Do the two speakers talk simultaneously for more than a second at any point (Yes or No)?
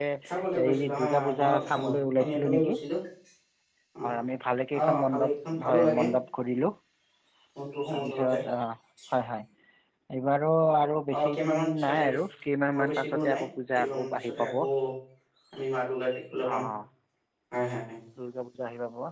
Yes